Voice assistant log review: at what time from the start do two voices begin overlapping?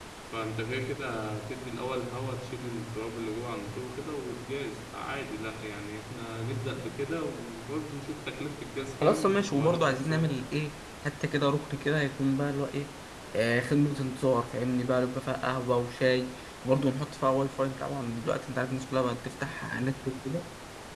9 s

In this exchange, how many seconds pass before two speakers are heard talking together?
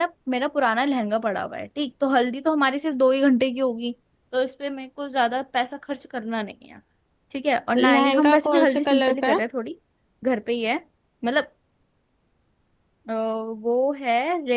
8 s

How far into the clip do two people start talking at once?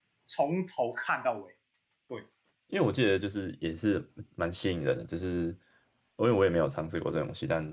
none

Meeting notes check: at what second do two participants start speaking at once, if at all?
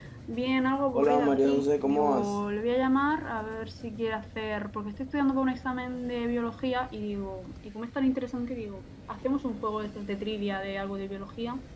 1 s

